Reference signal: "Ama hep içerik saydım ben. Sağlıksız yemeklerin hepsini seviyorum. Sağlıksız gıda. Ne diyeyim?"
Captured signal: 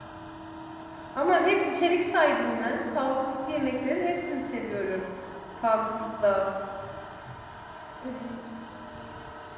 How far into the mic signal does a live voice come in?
none

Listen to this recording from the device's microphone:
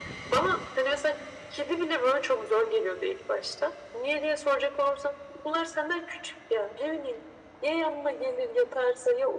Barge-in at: none

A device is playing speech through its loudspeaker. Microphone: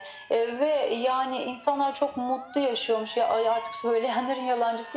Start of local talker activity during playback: none

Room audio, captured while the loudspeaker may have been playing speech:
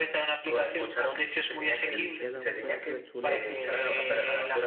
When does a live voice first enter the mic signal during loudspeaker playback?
2 s

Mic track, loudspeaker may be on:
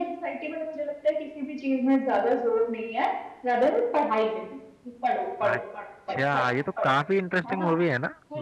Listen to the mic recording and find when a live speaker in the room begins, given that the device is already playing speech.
5 s

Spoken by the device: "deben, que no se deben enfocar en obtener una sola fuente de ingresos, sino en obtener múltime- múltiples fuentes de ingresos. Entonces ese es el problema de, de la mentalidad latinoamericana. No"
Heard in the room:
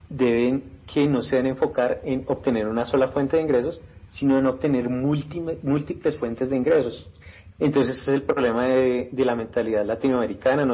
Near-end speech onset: none

